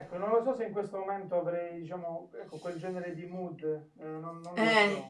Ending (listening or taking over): taking over